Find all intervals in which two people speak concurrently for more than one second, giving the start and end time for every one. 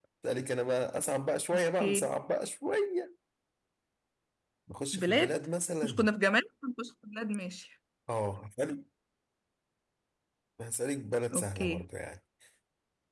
none

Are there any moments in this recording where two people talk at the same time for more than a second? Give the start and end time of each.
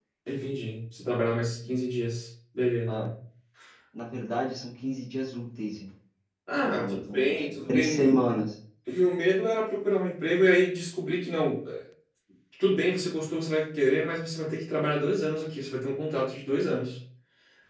6.6-8.1

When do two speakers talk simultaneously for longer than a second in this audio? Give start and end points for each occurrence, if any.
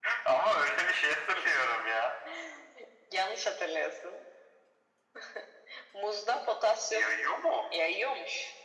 none

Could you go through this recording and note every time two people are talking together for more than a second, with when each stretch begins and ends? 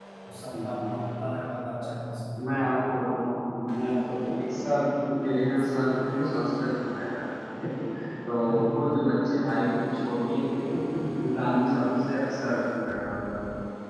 none

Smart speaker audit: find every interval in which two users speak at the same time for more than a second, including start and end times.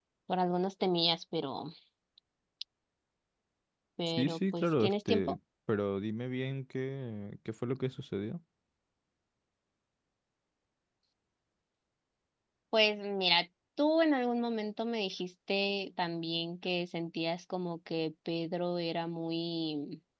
4.1-5.4

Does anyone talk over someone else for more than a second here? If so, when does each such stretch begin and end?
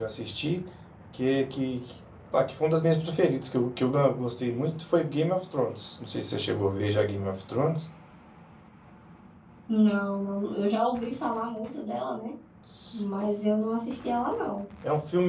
none

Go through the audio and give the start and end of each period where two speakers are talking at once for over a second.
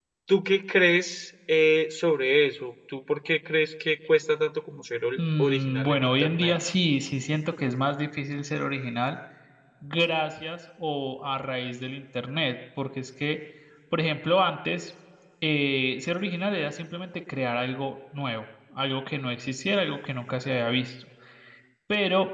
5.2-6.6

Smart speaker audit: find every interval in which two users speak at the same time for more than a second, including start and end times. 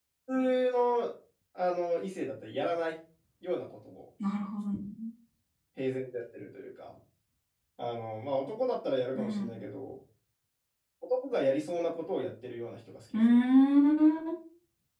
none

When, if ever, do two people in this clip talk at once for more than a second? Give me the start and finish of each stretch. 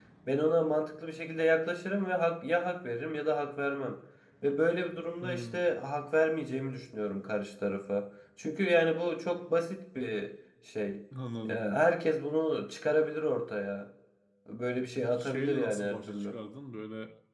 15.0-16.3

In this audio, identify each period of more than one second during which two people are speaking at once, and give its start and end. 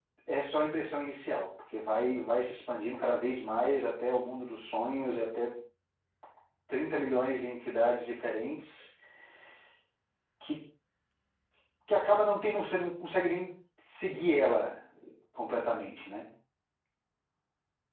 none

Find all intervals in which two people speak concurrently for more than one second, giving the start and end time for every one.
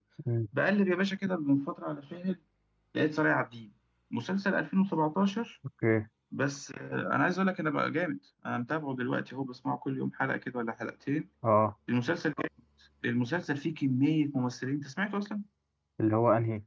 none

